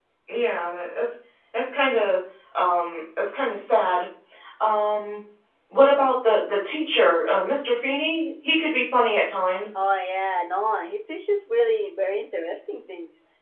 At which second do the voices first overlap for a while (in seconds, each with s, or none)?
none